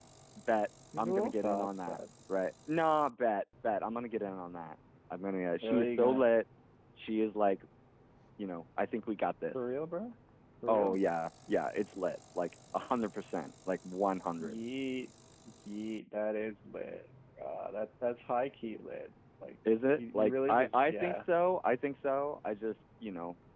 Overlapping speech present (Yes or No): Yes